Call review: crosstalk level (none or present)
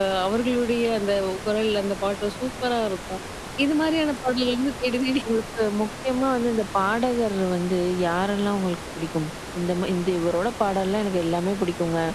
none